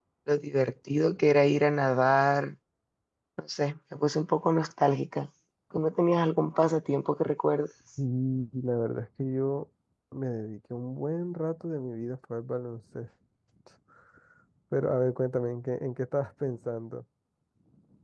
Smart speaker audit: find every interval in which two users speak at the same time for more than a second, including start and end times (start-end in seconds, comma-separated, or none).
none